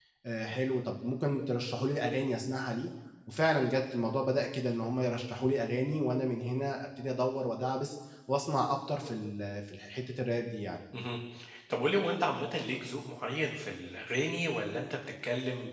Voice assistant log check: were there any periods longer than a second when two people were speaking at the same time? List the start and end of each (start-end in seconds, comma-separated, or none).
none